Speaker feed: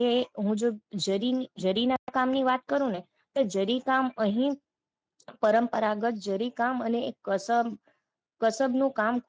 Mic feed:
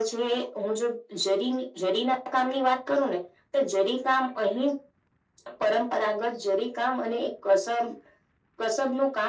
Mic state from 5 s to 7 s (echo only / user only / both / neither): echo only